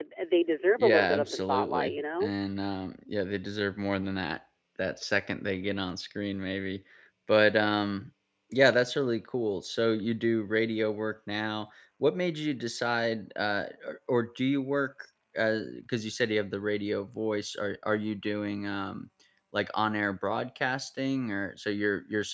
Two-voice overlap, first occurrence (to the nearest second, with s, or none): 1 s